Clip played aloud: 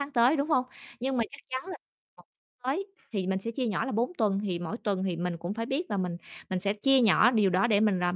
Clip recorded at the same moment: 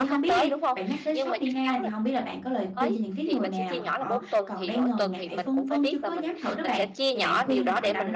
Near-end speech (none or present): present